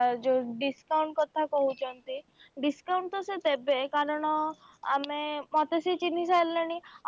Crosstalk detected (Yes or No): No